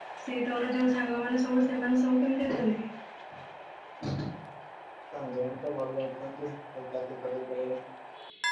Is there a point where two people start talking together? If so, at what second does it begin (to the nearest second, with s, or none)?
none